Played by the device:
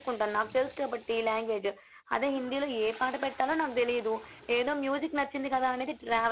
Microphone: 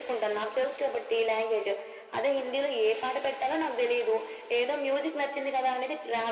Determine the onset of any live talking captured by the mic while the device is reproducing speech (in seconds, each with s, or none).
none